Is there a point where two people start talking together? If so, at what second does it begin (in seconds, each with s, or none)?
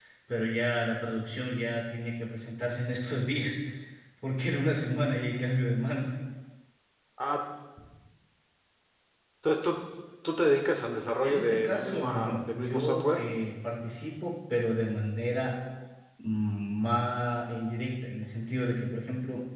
11.2 s